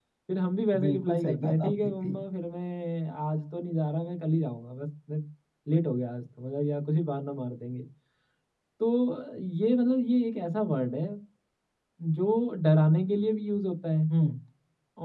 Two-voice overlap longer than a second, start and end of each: 0.8-2.2

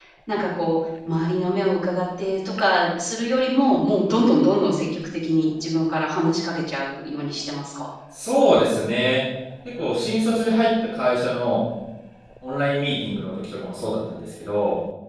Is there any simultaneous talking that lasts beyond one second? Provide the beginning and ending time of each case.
none

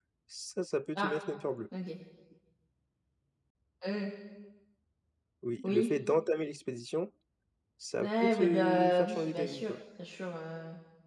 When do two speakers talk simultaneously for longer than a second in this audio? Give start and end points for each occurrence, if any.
8.0-9.7

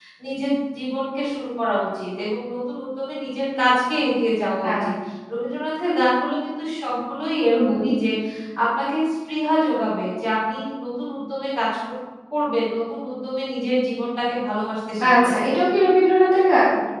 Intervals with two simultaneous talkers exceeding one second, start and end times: none

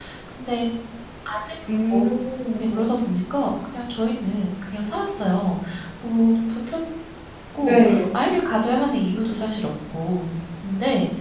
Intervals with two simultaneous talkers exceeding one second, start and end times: none

